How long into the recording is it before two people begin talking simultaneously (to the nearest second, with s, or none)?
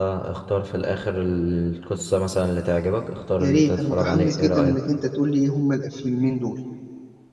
3 s